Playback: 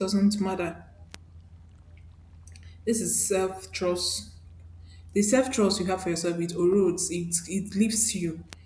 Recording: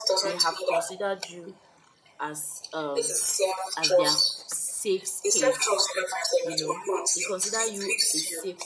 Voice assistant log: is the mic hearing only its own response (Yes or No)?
No